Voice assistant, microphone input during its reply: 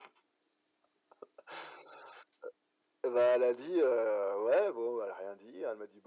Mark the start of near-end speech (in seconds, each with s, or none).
none